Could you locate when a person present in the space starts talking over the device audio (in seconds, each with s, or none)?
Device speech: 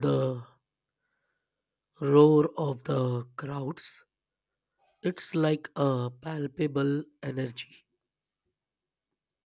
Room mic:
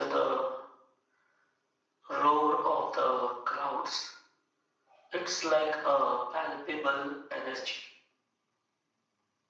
none